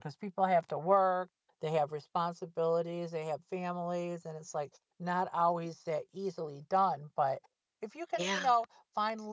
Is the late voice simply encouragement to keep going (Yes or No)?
Yes